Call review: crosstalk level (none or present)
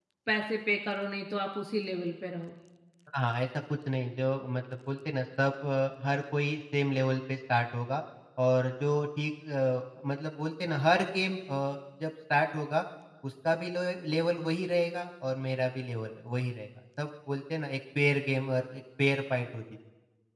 none